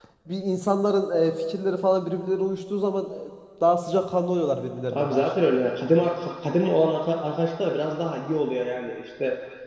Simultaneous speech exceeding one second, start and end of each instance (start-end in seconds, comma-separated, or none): none